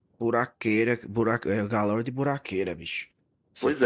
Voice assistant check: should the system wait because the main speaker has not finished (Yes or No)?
Yes